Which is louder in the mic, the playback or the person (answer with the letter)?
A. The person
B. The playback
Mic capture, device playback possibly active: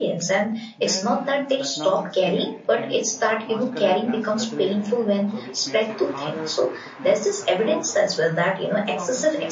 B